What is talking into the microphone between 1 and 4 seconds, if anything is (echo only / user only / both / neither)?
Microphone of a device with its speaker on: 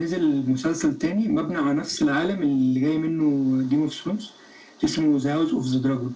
echo only